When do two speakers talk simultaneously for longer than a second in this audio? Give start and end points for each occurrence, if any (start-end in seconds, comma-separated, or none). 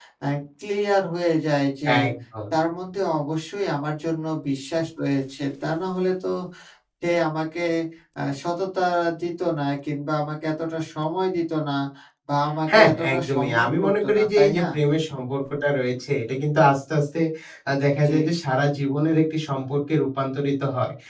12.8-14.6